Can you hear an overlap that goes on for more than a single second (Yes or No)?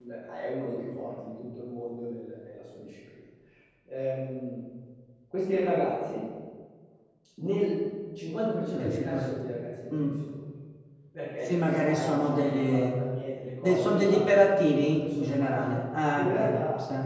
Yes